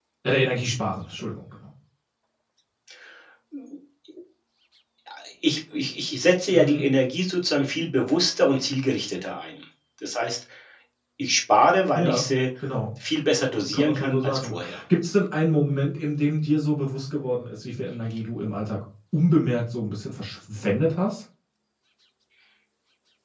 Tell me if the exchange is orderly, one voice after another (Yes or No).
No